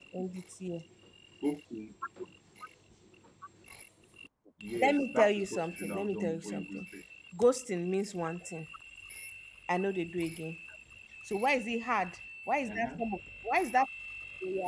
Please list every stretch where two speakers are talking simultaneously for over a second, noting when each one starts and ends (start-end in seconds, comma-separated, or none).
4.8-6.9